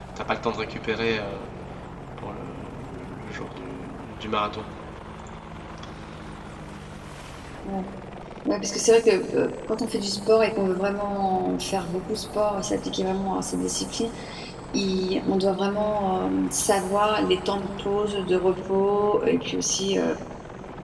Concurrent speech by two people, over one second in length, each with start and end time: none

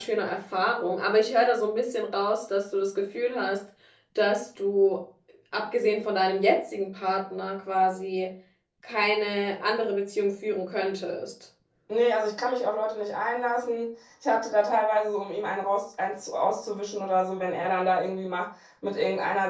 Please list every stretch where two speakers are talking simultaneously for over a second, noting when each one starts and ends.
none

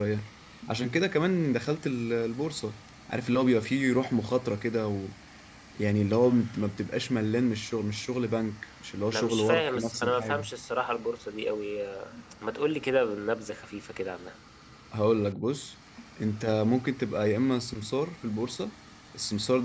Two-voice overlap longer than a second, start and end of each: 9.1-10.5

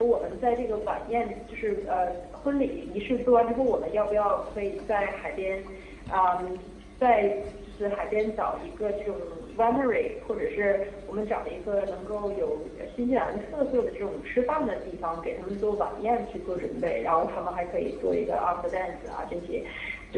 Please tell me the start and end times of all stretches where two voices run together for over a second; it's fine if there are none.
none

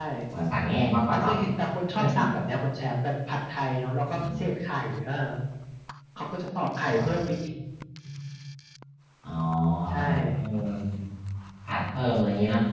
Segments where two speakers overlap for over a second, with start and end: none

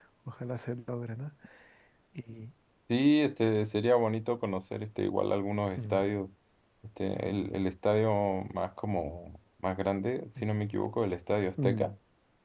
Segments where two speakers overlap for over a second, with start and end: none

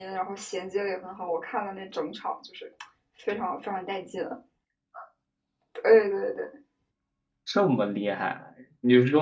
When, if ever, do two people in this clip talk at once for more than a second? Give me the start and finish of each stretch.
none

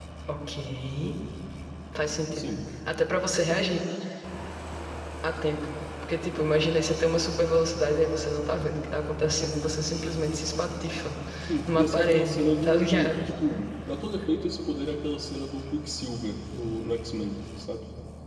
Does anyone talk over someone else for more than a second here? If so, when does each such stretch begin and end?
11.7-13.3

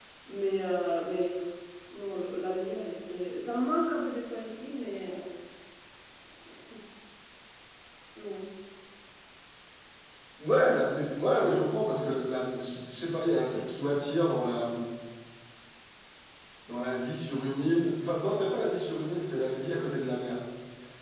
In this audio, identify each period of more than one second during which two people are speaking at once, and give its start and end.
none

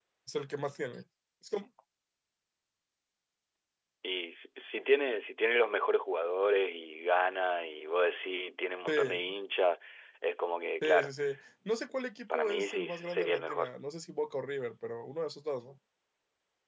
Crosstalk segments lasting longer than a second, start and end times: 12.3-13.7

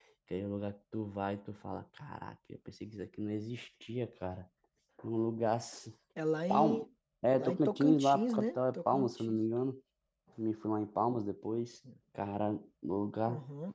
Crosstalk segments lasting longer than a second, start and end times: 7.3-9.4

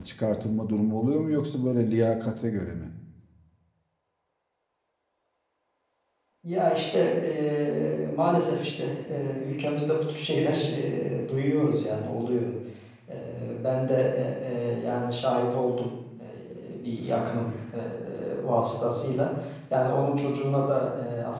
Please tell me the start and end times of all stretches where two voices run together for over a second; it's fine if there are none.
none

